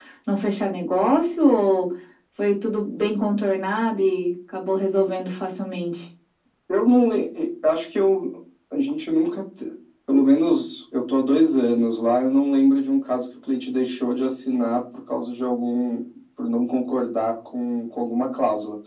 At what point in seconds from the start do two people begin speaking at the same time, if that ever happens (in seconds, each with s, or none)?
none